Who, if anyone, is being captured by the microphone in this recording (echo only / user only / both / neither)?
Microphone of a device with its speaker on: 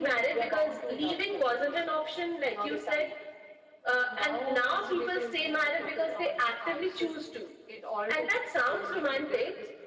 echo only